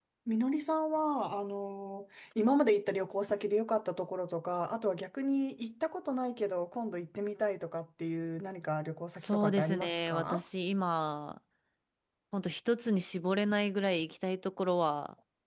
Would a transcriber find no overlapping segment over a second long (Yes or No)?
No